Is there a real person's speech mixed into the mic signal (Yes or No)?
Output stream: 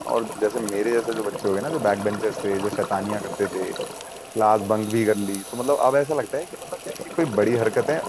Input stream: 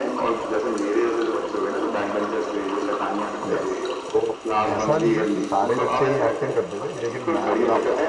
Yes